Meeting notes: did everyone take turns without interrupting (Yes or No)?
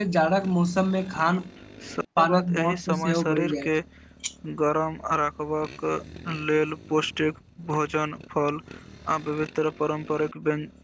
No